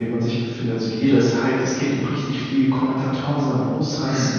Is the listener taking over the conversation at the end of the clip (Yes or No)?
No